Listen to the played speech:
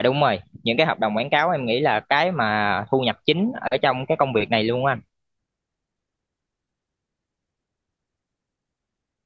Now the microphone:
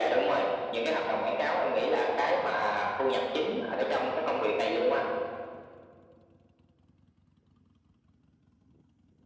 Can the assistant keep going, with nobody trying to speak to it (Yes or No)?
Yes